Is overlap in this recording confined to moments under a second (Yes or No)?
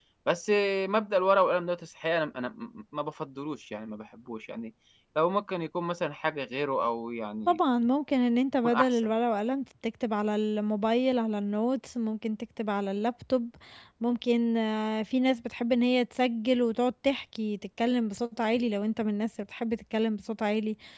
Yes